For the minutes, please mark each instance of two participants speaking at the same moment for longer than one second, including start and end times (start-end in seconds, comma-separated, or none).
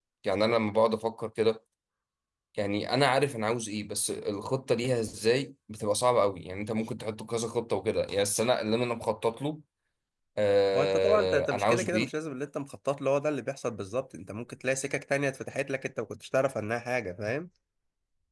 10.8-12.1